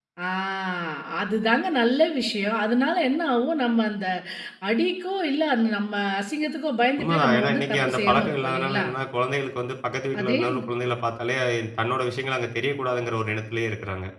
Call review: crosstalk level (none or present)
present